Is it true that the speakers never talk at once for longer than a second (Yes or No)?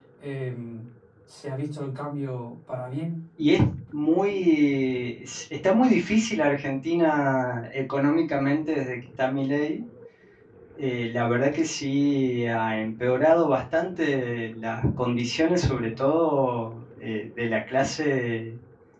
Yes